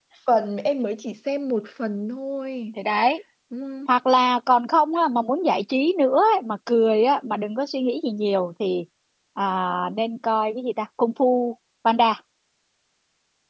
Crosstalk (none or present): none